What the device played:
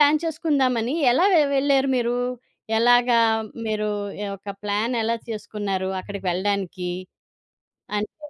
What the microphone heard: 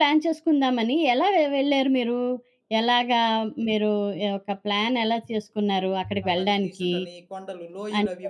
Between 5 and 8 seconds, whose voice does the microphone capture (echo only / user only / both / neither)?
both